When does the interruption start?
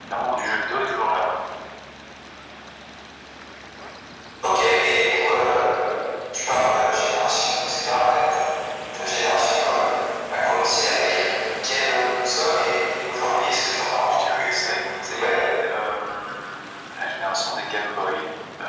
13.8 s

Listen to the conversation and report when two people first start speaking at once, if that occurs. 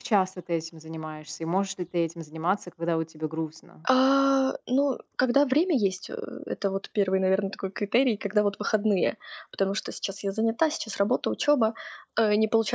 none

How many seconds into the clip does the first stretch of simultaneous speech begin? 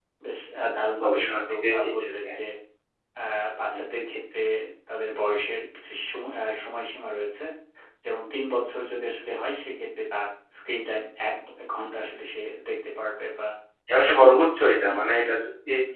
1.0 s

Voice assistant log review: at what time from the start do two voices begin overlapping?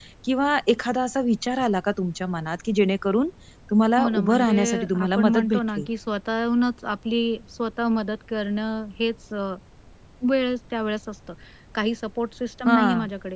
4.0 s

